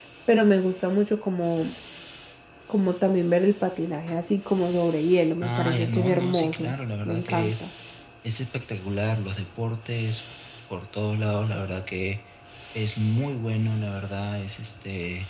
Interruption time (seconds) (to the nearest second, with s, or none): 5 s